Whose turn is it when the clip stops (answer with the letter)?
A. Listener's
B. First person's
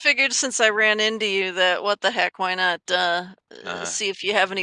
B